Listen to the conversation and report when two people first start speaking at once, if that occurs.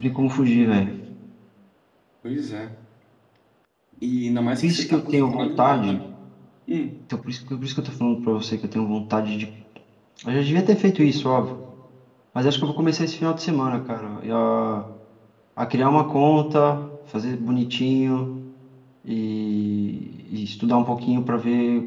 4.6 s

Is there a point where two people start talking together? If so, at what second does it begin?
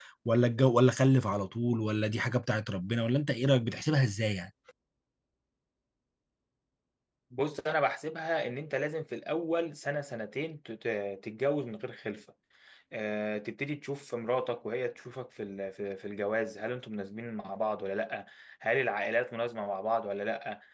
none

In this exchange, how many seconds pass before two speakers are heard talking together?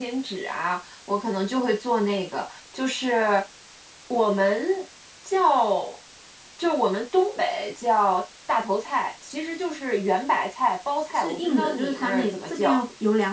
11.1 s

